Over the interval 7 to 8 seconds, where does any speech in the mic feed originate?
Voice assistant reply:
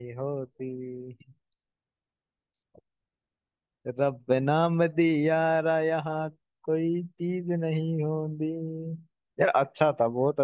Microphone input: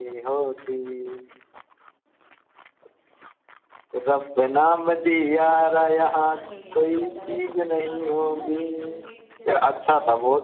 both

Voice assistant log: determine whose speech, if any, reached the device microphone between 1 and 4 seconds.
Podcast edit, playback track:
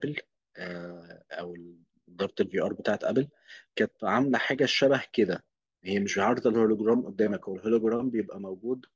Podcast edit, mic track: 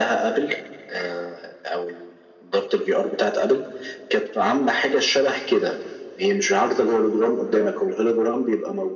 echo only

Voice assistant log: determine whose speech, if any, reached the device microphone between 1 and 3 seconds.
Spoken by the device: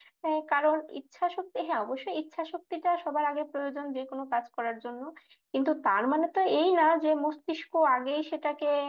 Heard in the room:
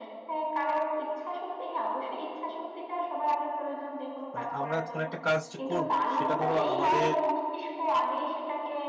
echo only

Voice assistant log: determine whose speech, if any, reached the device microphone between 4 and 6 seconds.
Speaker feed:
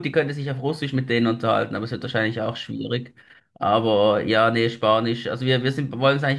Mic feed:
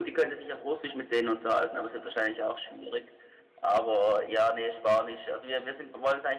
echo only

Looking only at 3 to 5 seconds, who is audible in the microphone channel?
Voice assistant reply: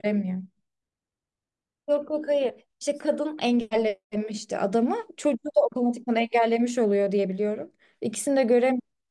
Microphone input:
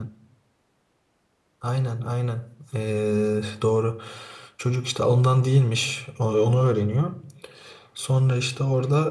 user only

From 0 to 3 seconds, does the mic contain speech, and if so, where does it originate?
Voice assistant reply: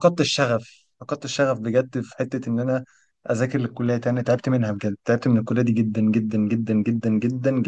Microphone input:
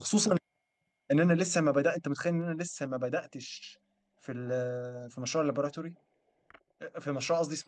user only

